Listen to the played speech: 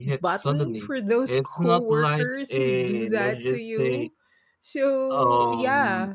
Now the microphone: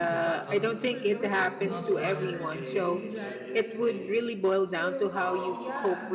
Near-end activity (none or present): present